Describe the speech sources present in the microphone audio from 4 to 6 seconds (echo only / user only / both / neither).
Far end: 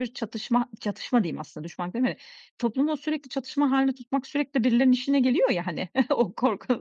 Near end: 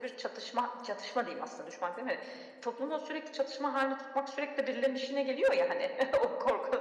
echo only